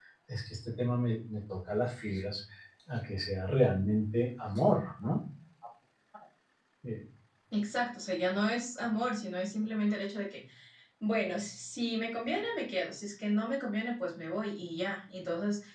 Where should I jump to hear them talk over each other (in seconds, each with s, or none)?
none